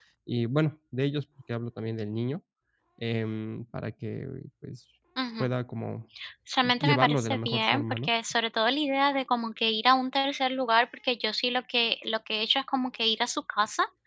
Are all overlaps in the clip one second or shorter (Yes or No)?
No